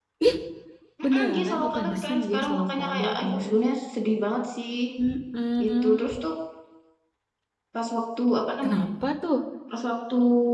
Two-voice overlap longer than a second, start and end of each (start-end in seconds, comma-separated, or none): 1.0-3.4